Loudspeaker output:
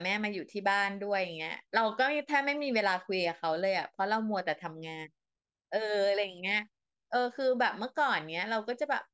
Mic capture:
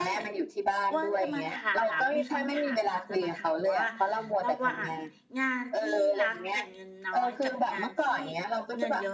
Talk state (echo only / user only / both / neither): both